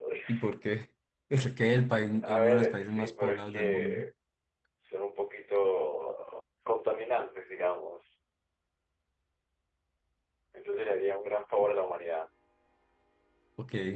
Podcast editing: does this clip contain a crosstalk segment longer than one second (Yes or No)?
Yes